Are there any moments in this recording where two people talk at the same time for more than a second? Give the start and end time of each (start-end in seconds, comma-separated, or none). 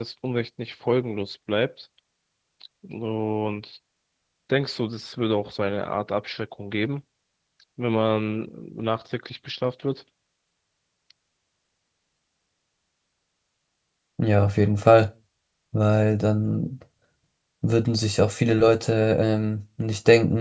none